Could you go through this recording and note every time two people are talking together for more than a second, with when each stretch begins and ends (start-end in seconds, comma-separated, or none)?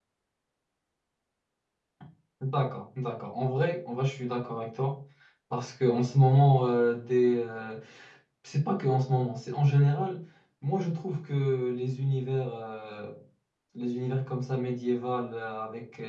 none